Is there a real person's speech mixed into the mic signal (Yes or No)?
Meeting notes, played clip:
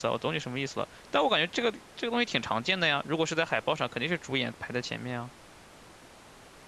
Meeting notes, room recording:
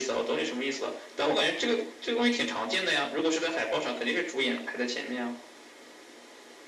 No